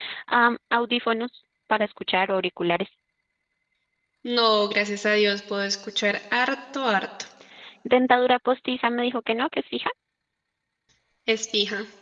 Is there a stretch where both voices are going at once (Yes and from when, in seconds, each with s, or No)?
No